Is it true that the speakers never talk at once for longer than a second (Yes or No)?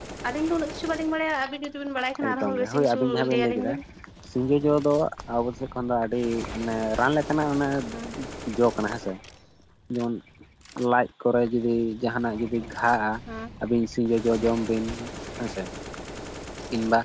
No